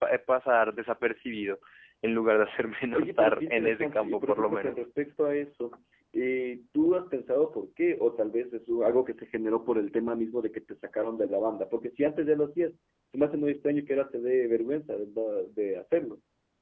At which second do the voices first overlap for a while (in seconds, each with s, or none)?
2.9 s